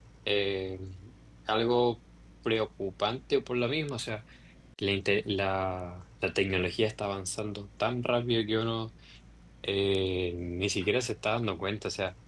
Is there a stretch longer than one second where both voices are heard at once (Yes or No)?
No